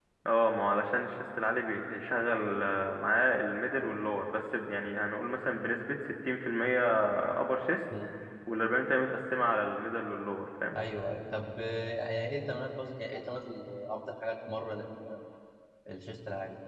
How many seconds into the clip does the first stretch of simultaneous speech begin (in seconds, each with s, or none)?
none